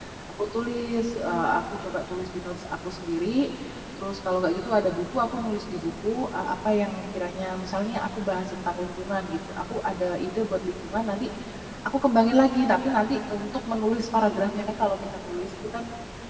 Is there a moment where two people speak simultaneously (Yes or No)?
No